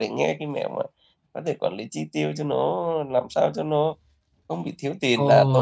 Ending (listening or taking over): taking over